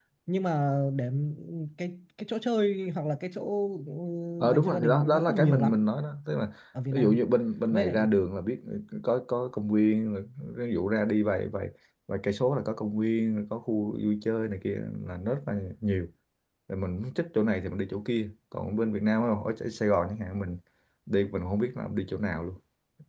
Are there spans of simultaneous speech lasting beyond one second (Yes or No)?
Yes